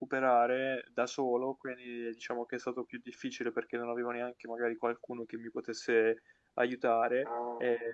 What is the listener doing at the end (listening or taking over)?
listening